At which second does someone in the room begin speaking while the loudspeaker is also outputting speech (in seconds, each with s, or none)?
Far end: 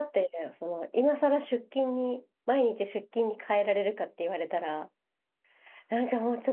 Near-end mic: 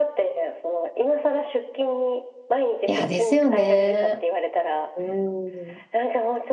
2.9 s